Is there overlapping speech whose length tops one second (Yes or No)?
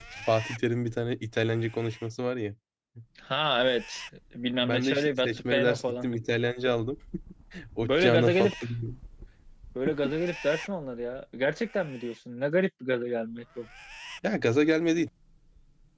Yes